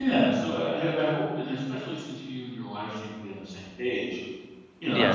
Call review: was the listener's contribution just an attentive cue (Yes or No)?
No